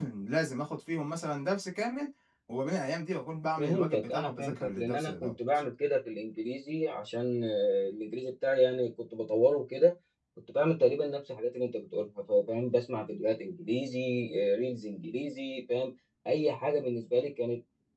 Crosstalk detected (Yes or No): Yes